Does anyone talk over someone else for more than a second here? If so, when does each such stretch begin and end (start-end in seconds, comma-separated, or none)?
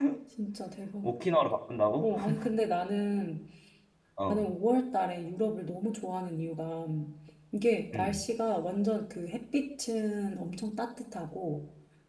none